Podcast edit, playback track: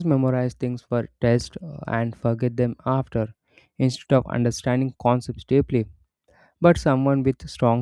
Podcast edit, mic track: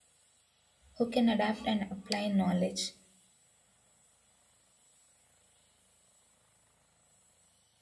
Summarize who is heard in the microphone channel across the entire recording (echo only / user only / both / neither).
user only